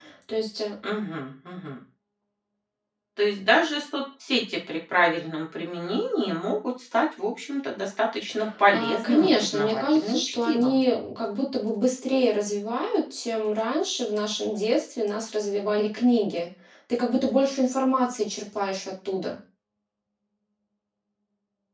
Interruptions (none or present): present